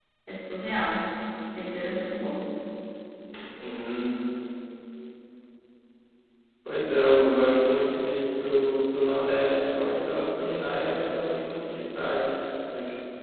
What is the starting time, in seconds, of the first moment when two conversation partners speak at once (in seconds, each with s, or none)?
none